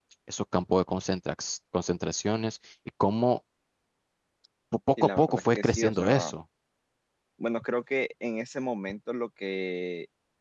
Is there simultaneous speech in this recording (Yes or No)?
Yes